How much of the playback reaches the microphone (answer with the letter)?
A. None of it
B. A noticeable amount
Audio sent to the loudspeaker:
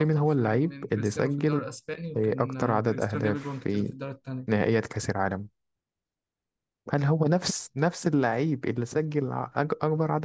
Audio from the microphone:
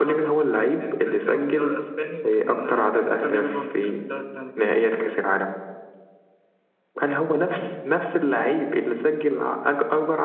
B